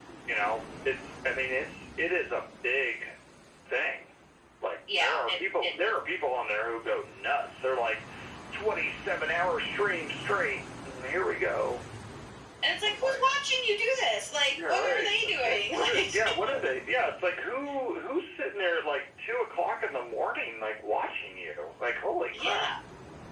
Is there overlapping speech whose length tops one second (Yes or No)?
Yes